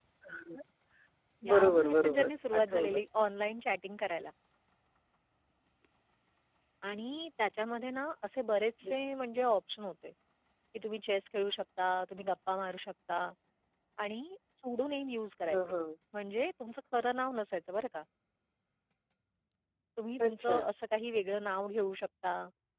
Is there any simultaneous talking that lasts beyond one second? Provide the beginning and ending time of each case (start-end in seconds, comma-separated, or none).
1.5-3.0